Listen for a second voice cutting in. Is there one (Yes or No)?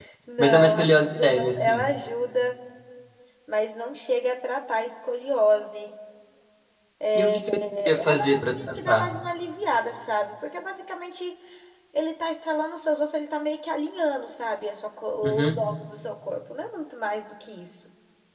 Yes